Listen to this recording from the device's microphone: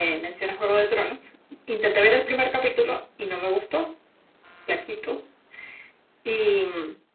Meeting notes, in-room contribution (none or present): none